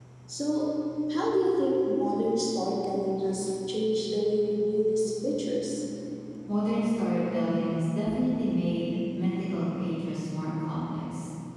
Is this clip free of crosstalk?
Yes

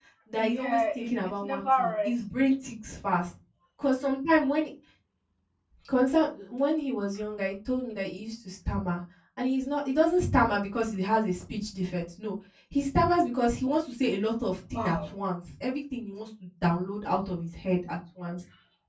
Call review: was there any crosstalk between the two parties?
Yes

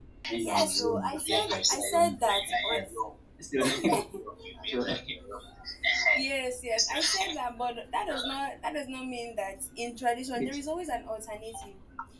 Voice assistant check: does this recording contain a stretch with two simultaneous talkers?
Yes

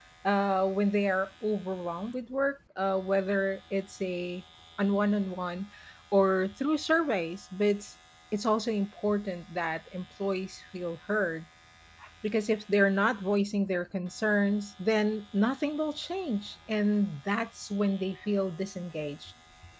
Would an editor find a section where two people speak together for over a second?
No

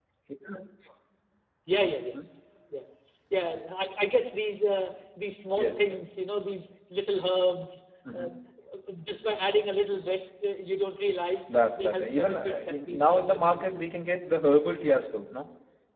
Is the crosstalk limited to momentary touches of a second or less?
No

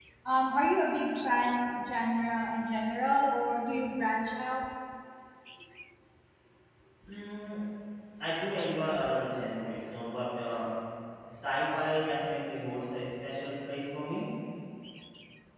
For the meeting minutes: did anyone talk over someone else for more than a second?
No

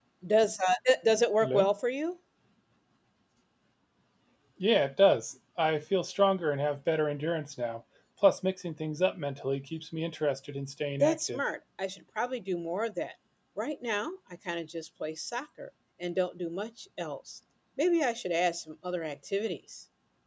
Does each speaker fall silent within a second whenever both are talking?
Yes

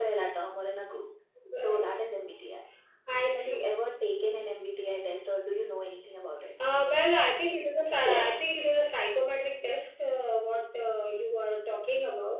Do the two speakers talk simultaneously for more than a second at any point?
No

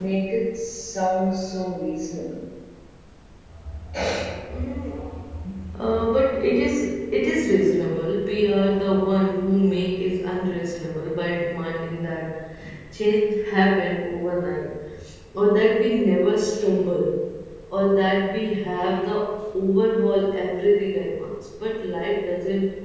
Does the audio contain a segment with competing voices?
No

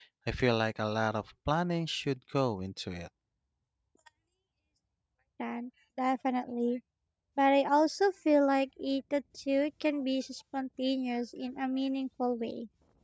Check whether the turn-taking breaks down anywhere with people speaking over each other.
No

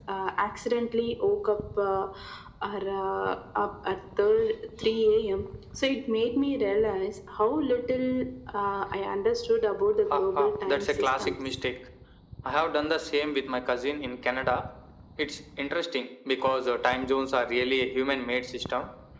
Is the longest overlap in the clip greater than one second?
Yes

